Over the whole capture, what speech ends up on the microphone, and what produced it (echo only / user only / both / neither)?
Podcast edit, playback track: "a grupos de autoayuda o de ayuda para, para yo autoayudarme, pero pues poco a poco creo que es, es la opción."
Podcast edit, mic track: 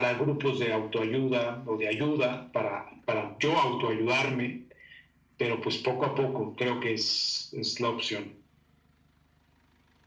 echo only